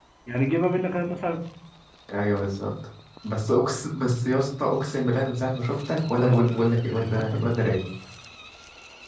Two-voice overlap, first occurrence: 6.0 s

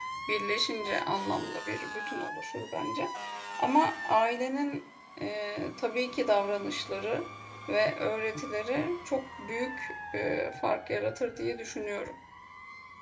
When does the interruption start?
none

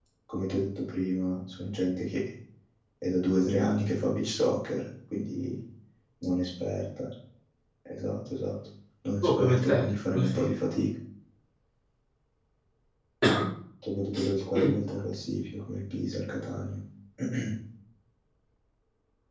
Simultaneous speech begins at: 9.2 s

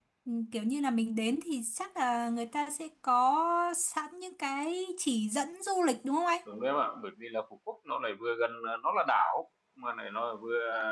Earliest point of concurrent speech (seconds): none

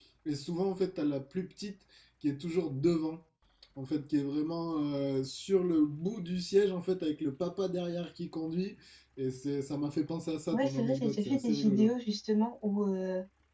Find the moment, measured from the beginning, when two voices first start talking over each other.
10.5 s

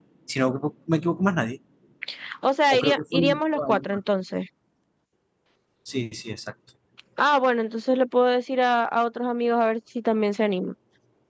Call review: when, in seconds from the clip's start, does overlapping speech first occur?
2.7 s

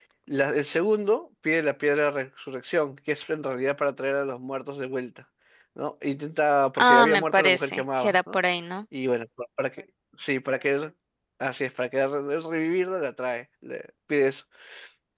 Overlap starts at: 6.8 s

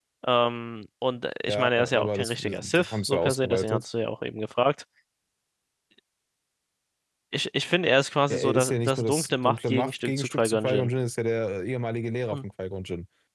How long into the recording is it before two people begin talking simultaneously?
1.4 s

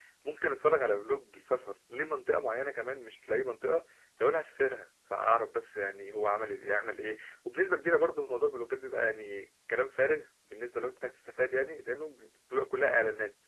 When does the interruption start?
none

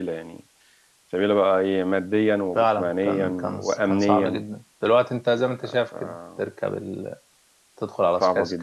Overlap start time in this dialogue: 2.5 s

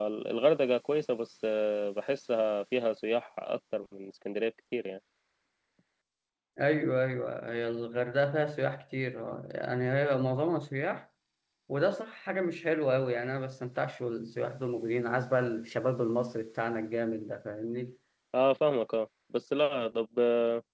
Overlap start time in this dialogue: none

